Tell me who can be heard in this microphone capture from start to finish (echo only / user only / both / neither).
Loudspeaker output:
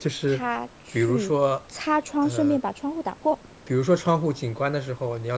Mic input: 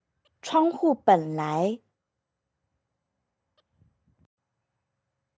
user only